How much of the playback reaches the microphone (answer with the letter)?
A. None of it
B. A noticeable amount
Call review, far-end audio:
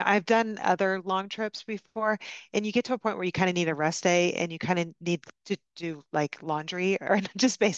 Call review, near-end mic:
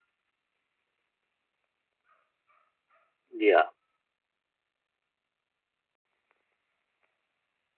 A